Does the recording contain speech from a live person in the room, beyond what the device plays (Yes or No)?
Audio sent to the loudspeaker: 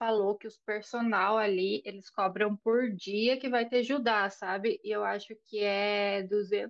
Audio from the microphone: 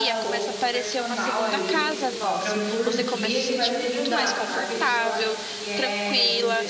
Yes